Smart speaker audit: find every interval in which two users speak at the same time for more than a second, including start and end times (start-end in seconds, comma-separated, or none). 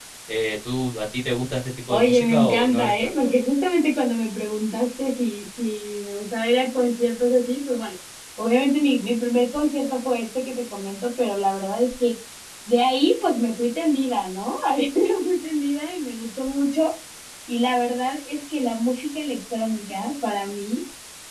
1.9-3.3